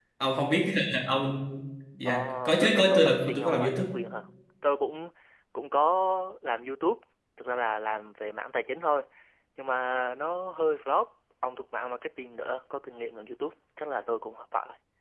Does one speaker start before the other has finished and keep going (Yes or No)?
Yes